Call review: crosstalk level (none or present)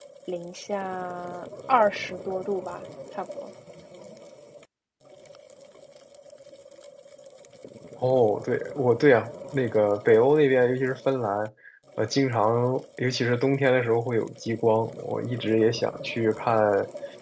none